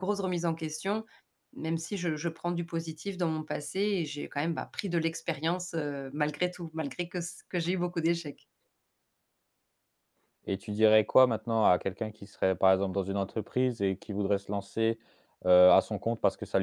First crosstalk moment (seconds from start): none

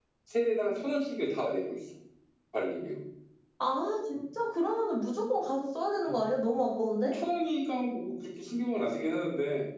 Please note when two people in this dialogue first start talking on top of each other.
none

